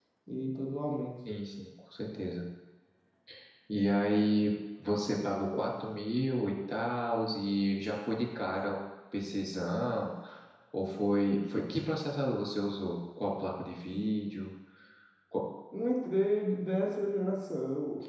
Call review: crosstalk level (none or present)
none